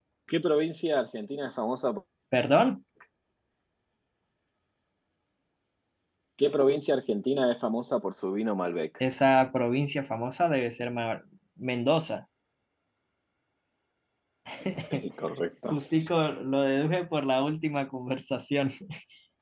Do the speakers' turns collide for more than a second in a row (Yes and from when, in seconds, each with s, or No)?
No